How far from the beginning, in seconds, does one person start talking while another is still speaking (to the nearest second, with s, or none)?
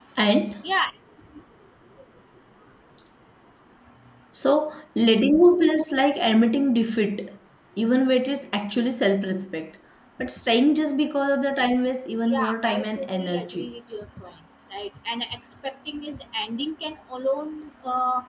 12 s